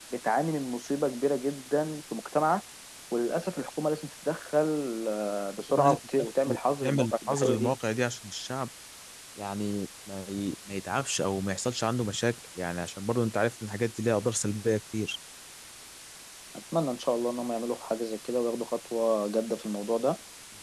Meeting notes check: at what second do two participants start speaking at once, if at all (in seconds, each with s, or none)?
5.8 s